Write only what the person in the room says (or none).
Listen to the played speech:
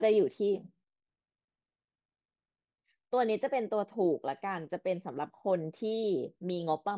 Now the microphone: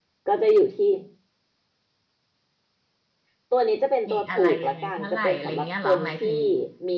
มีอะไรยังไงเท่าไหร่อะไรเงี้ยเหรอหมายถึง